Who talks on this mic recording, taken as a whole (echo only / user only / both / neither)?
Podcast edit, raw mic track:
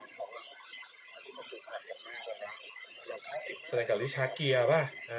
both